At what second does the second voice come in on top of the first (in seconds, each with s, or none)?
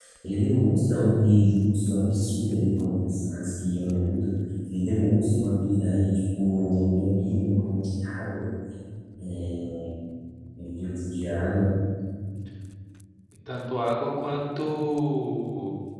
none